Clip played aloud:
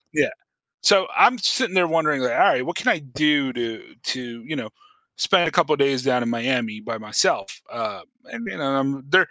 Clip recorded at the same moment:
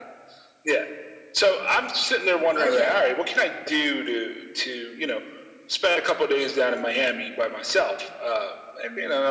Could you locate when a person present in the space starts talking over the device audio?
2.5 s

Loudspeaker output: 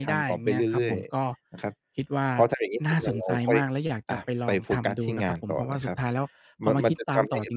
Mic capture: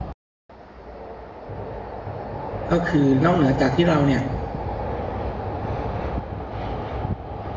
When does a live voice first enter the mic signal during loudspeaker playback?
2.7 s

